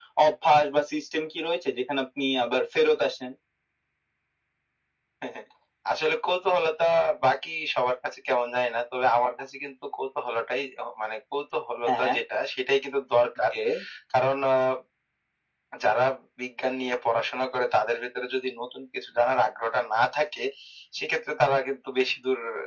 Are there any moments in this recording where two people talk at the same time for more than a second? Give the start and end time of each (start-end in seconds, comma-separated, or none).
none